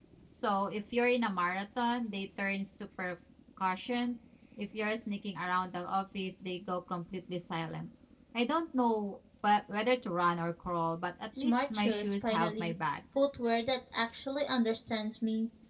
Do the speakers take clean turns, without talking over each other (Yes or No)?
No